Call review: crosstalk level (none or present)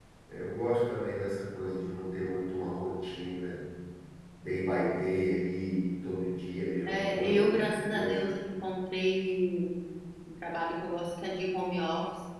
present